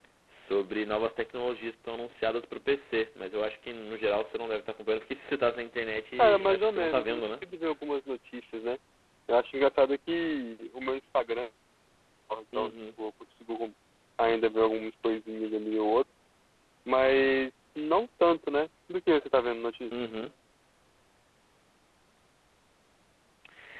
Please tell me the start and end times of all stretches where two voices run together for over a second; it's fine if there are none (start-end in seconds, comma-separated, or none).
6.2-7.4